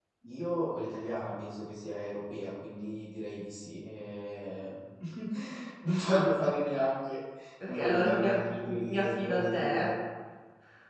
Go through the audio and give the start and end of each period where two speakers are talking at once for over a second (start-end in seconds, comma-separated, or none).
7.7-9.9